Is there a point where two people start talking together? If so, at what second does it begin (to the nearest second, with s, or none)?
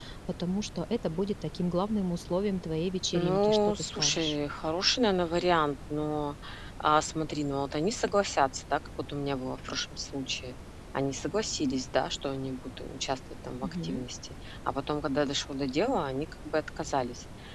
3 s